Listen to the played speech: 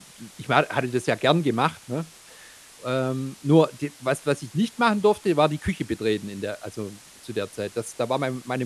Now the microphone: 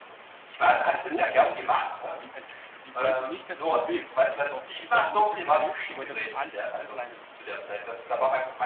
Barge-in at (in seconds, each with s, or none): 0.9 s